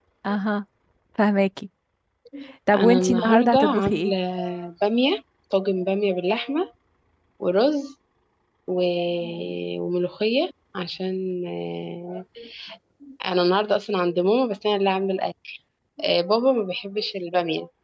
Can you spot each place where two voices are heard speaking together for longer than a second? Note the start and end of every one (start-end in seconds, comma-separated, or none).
2.7-4.1